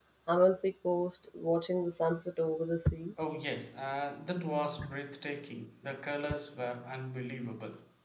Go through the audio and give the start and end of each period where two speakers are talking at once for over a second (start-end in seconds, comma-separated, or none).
none